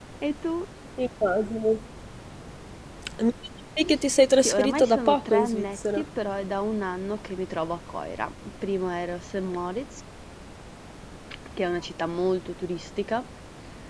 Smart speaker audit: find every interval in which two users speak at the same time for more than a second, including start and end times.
4.4-6.0

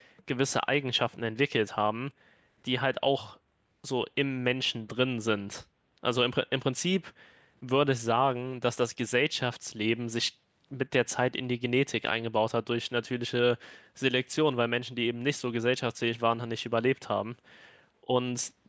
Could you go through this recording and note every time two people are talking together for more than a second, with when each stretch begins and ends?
none

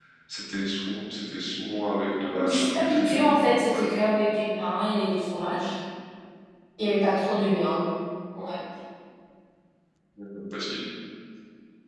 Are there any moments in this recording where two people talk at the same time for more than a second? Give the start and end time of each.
2.2-4.0

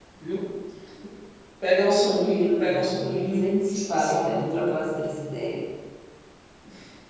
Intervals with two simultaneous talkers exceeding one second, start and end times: 2.0-4.9

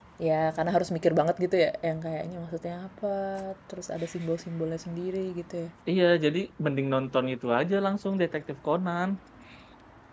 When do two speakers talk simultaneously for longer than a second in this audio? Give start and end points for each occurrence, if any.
none

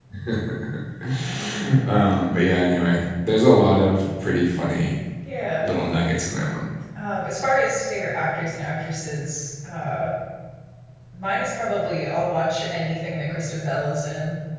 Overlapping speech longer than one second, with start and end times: none

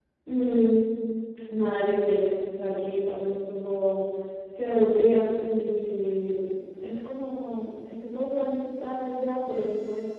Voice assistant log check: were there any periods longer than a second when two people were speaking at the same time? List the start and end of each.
none

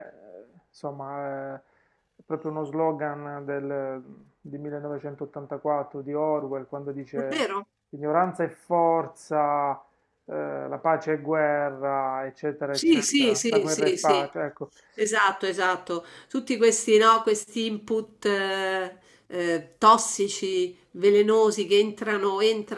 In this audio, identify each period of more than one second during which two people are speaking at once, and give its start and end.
12.8-14.2

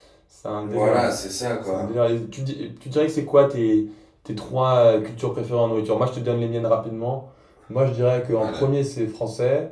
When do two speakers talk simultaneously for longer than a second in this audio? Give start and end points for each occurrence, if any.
none

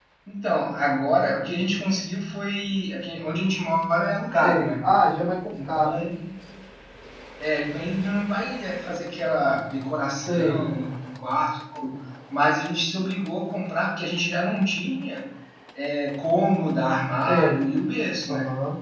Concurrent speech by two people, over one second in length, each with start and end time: none

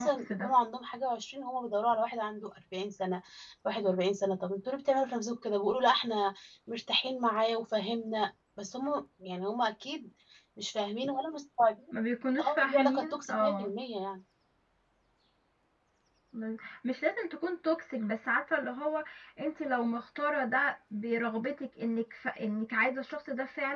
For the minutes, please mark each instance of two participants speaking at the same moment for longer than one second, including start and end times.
12.4-13.7

